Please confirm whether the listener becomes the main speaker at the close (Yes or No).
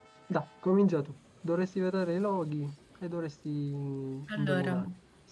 No